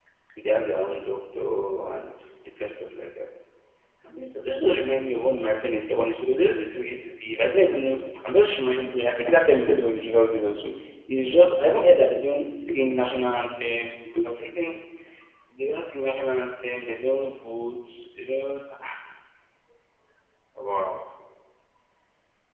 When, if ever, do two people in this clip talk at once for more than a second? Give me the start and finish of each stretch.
none

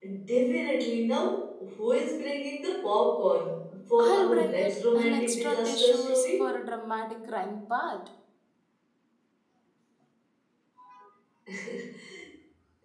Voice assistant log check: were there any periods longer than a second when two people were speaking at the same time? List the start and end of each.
4.0-6.5

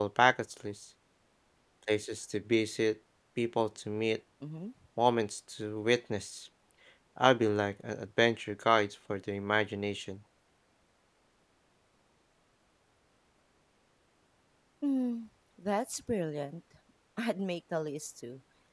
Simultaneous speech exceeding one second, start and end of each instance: none

